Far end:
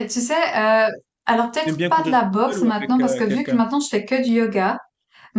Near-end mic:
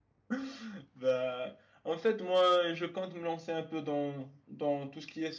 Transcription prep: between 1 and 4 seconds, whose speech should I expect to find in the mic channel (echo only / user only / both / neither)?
user only